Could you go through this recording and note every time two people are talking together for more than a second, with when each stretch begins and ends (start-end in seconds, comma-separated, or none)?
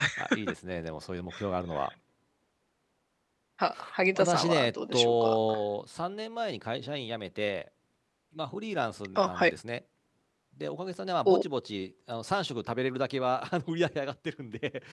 4.2-5.4